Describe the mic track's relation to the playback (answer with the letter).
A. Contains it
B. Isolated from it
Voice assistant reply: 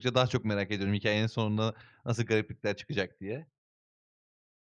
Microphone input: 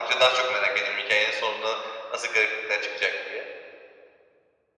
A